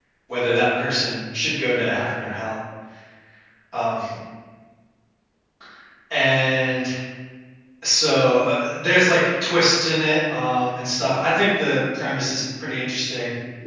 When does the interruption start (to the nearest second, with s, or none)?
none